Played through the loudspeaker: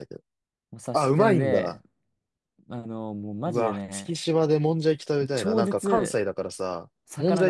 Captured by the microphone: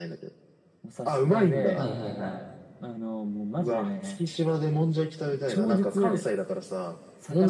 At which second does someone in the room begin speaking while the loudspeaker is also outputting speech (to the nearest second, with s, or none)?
2 s